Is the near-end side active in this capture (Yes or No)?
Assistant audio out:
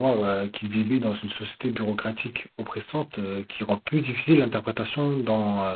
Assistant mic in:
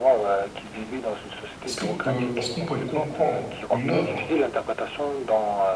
Yes